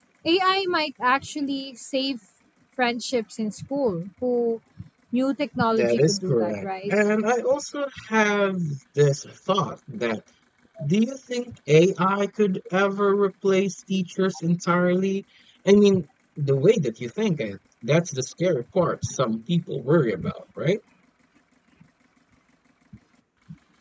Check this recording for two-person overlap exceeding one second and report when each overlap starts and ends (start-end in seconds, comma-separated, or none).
5.7-6.9